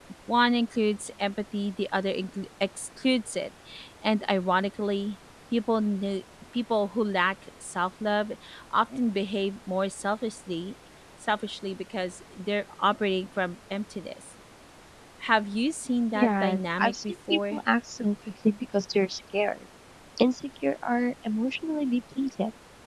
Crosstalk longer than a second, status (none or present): present